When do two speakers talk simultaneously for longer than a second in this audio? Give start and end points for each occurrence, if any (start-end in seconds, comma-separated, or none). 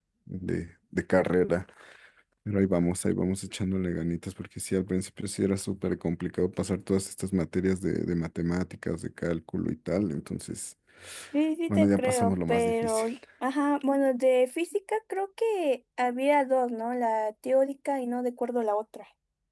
11.7-13.1